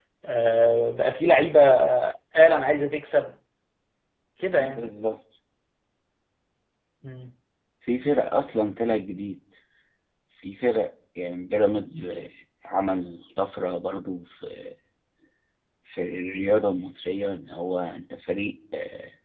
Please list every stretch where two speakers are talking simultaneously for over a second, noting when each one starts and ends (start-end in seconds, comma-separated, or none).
none